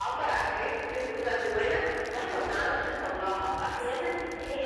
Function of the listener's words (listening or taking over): listening